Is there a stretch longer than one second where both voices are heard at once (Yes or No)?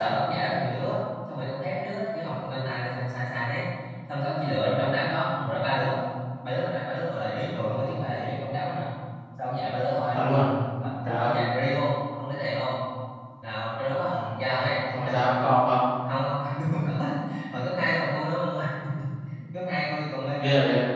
No